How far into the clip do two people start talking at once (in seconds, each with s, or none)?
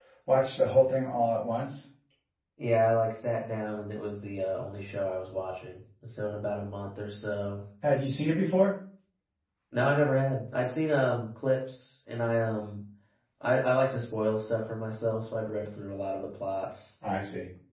none